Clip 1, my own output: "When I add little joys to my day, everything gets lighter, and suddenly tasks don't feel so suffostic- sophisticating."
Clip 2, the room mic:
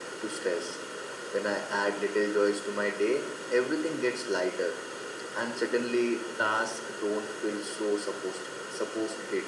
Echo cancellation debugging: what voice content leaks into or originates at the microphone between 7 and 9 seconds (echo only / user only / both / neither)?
echo only